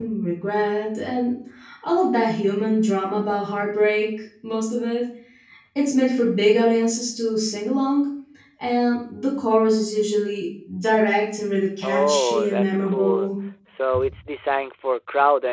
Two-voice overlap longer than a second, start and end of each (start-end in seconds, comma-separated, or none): 11.8-13.3